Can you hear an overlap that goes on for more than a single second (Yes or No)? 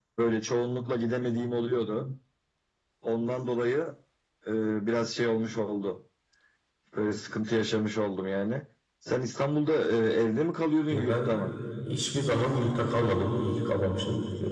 No